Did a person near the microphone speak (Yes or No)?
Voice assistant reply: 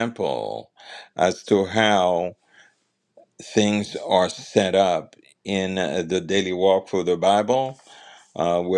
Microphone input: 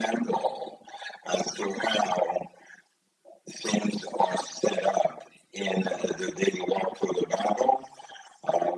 No